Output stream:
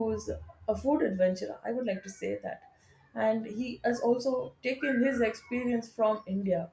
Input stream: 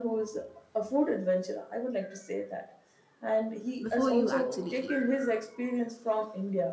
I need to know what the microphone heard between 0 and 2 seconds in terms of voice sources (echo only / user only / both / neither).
echo only